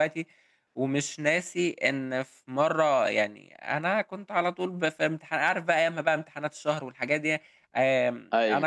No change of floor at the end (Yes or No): Yes